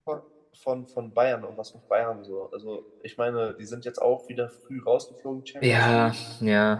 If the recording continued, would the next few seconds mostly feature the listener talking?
Yes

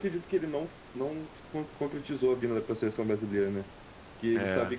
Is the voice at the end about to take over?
No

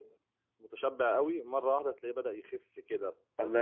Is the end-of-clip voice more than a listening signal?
Yes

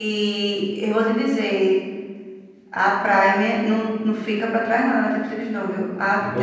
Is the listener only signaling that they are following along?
Yes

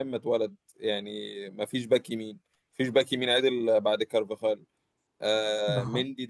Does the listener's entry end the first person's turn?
No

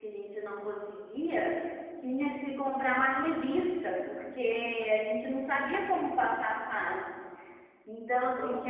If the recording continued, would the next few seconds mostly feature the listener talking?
No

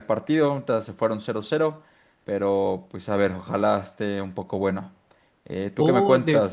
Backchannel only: No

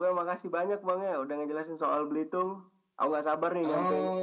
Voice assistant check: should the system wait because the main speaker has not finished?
No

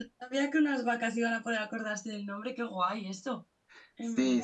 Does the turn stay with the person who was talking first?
No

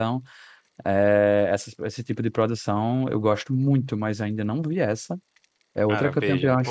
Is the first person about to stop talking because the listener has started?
Yes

